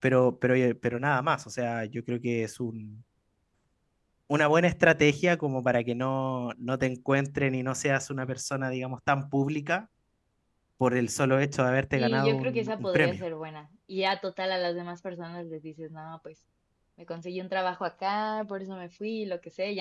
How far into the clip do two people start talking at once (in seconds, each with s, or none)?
11.9 s